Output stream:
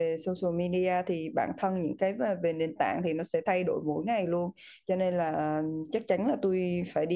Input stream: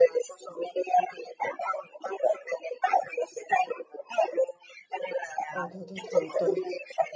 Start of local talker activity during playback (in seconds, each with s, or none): 5.5 s